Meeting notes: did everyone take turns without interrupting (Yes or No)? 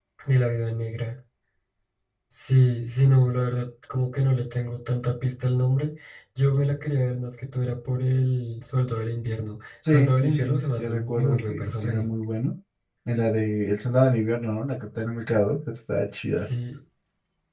No